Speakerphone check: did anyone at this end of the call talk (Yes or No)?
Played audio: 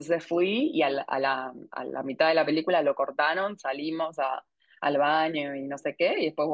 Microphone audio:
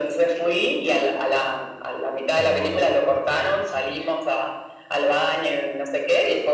Yes